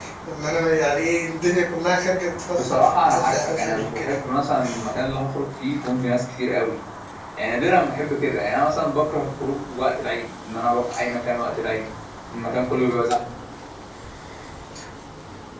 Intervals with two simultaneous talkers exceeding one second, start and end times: 2.5-4.1

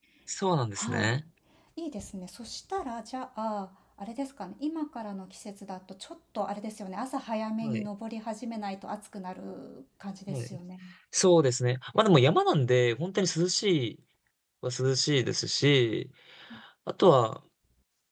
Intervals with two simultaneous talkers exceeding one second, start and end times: none

